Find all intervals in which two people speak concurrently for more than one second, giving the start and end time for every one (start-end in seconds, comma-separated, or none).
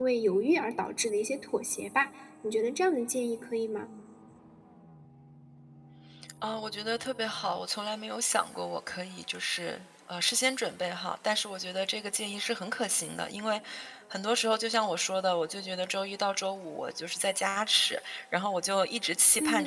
none